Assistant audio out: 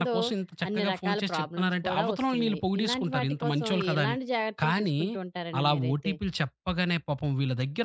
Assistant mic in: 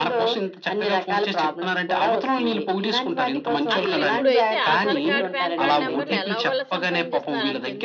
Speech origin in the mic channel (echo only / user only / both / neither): both